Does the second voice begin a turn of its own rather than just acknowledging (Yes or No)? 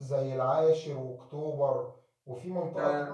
No